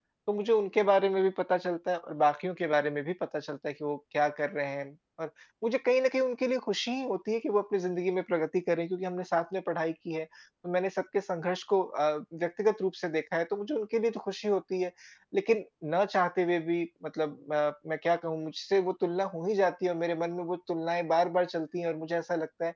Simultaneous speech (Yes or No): No